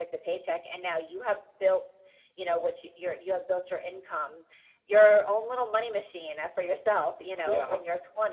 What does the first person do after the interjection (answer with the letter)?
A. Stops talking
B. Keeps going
B